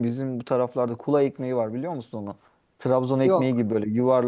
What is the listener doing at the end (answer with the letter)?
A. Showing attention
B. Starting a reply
A